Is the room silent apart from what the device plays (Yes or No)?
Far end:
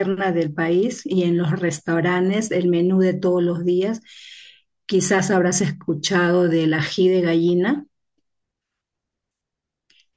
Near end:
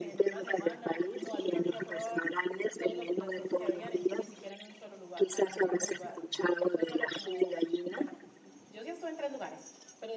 No